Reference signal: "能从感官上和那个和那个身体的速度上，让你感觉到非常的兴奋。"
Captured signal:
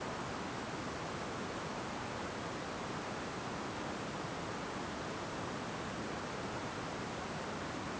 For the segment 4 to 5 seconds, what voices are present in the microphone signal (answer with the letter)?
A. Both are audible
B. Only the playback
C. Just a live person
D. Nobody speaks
D